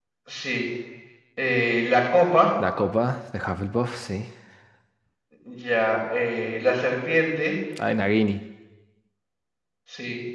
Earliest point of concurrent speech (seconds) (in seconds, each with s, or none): none